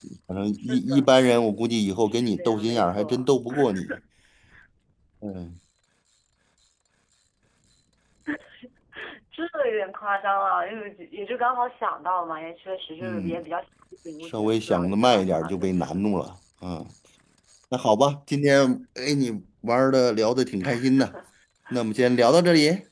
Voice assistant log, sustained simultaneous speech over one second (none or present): present